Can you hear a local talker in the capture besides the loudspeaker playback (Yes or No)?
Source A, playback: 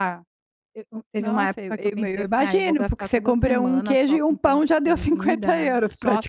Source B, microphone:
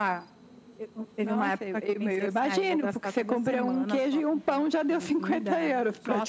No